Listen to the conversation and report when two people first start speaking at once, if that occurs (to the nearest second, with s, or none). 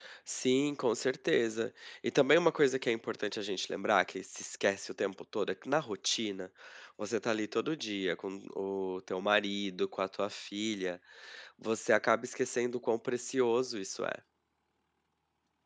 none